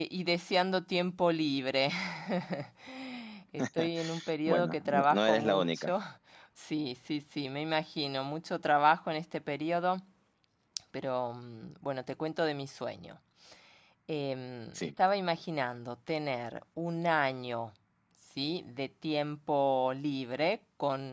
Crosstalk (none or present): present